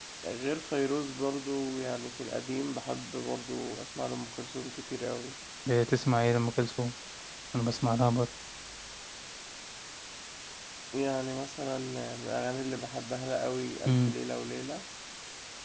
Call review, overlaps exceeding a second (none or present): none